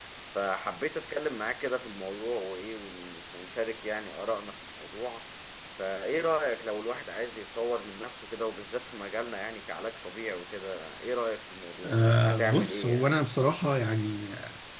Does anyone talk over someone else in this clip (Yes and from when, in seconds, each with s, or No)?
Yes, from 11.8 s